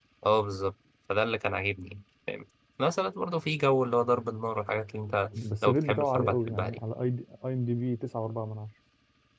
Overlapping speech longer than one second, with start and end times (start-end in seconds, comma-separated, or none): 5.4-6.8